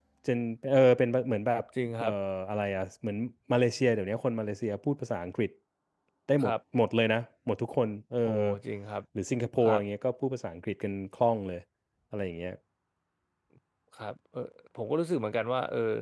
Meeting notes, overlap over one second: none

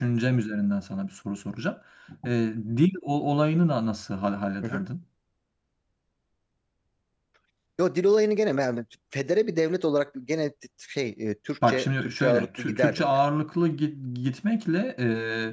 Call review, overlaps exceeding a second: present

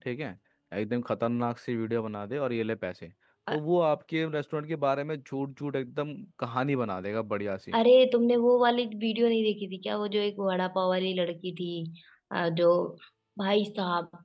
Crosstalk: none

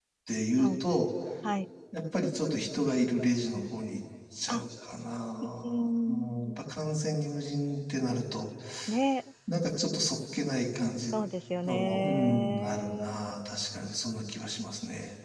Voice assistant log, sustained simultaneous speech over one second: present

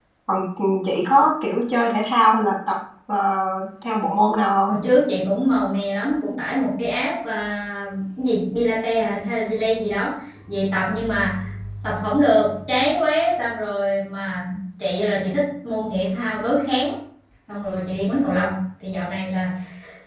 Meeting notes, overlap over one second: none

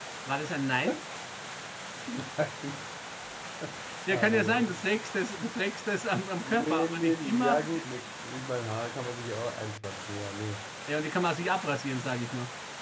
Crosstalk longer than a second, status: present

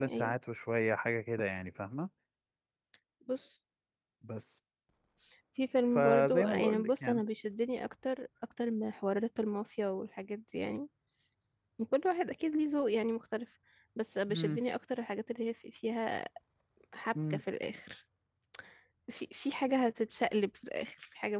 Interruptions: present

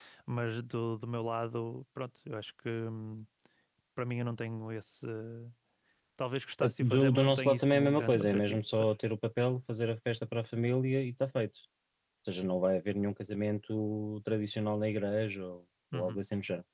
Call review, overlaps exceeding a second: present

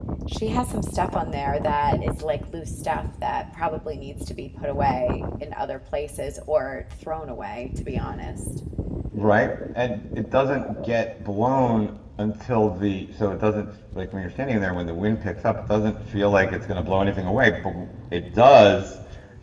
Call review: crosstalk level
none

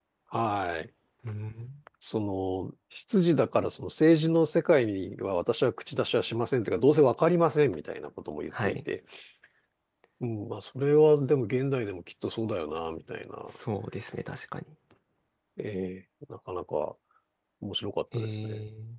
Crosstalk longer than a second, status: none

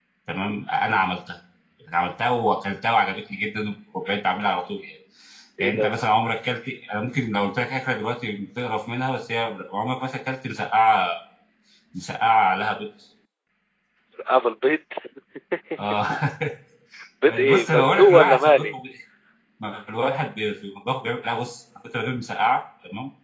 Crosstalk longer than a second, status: present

